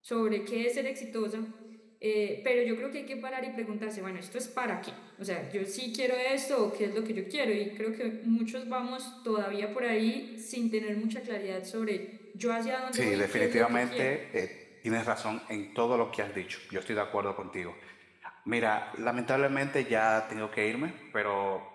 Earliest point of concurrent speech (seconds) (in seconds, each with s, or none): 12.9 s